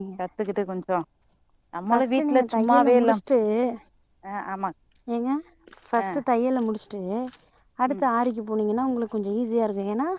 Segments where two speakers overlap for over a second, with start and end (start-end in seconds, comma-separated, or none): 1.9-3.1